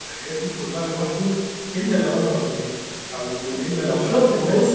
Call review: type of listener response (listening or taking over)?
taking over